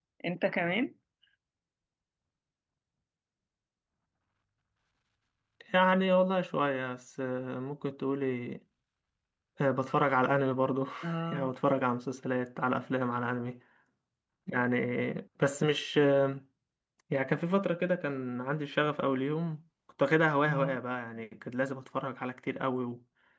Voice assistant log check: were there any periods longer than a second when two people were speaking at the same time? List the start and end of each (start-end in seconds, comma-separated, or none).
none